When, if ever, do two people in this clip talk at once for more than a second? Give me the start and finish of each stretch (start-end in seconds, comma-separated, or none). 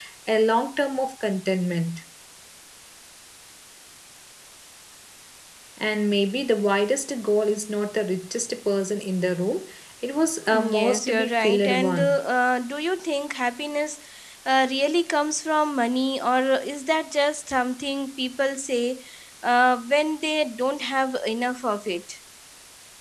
10.5-12.2